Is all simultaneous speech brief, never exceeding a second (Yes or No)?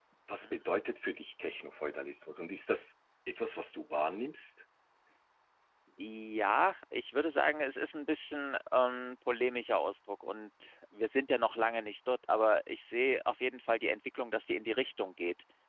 Yes